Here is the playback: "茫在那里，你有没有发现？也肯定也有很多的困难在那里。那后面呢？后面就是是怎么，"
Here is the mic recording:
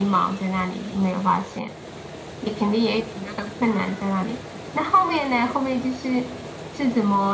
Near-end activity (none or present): none